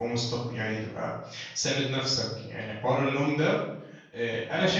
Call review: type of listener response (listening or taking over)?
listening